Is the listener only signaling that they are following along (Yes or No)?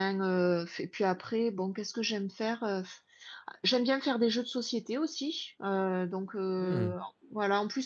Yes